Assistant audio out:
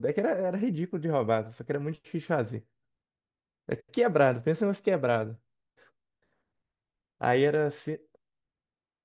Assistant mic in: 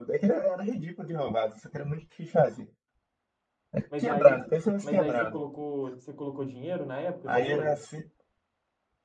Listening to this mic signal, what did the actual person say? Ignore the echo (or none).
Mas aí, mas aí você colocou, você colocou dinheiro na época no jogo?